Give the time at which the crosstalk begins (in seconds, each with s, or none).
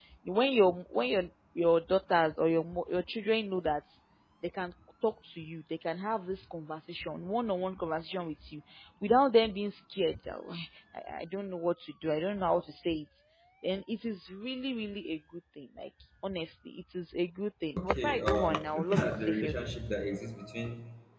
17.8 s